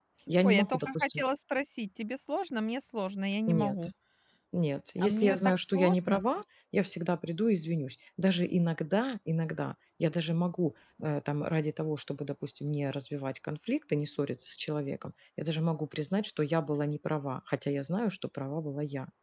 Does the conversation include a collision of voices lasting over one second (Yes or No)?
Yes